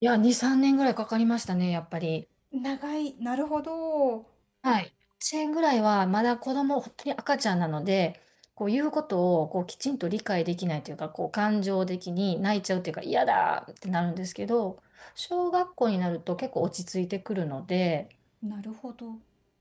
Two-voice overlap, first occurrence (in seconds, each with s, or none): none